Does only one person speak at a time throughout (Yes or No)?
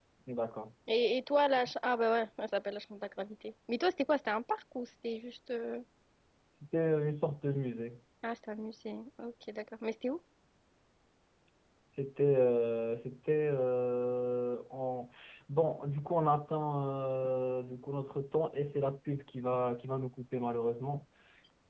Yes